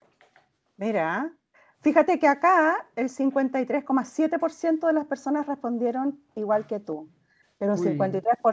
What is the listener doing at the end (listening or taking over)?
listening